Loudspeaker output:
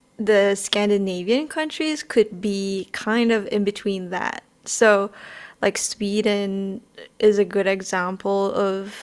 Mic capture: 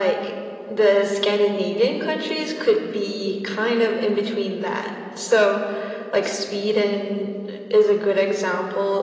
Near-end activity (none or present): none